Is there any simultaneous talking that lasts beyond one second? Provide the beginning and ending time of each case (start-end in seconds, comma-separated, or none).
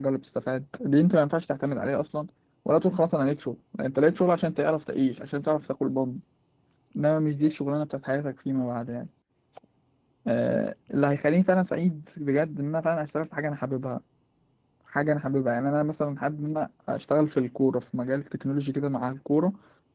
none